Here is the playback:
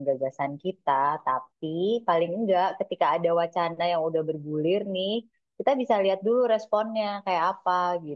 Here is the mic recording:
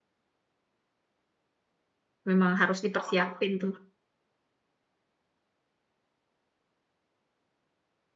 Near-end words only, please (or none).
Memang harus dipersiapin tuh.